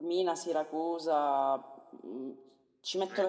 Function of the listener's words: listening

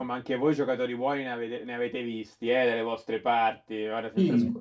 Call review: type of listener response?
listening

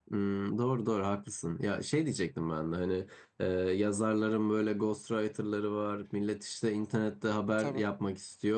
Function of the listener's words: listening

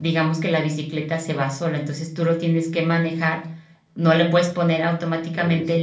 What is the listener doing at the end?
listening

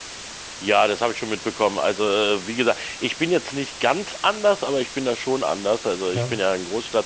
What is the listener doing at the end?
listening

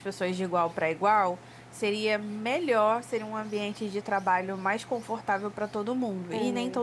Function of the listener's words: taking over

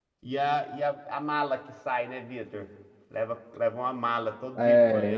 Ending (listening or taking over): taking over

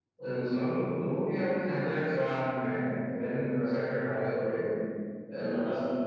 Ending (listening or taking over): taking over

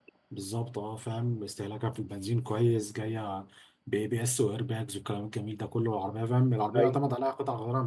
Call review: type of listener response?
listening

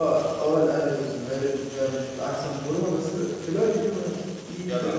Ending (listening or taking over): listening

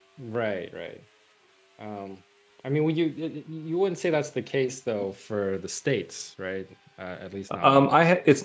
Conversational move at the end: taking over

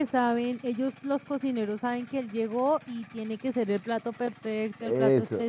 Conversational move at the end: taking over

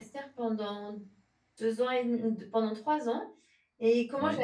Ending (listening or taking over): listening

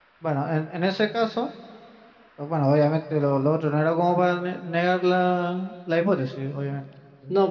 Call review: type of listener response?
taking over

